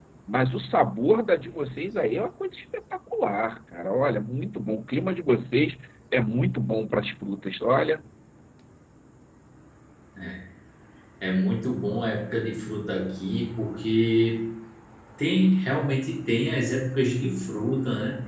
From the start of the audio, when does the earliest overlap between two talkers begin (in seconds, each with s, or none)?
none